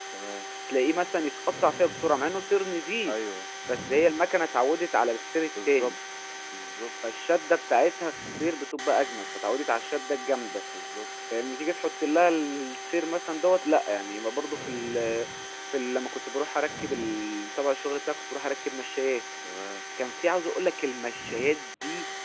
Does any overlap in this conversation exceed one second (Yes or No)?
No